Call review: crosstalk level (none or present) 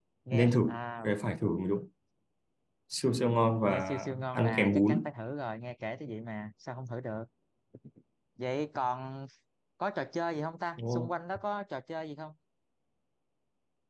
present